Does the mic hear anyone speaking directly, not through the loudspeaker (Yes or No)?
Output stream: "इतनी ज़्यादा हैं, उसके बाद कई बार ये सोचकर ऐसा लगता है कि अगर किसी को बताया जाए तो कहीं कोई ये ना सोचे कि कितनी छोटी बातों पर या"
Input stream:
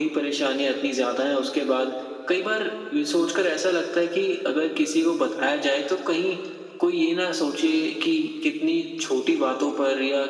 No